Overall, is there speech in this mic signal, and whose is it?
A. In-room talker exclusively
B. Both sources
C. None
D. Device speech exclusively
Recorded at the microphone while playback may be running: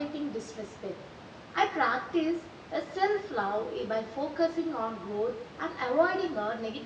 D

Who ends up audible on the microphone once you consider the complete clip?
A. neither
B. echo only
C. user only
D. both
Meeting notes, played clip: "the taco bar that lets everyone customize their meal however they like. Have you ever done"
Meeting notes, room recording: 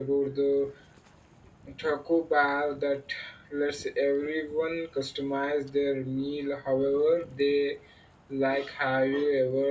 B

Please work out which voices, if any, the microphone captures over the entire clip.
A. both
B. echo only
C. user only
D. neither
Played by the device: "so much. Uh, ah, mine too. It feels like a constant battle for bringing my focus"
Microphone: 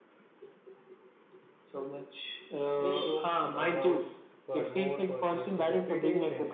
A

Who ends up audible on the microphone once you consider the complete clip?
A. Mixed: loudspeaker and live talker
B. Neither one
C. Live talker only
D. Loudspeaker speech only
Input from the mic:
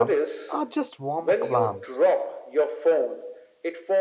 A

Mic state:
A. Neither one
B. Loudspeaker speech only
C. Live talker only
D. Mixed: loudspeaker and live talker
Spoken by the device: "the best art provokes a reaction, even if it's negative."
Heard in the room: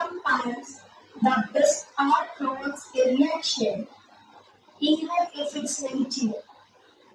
B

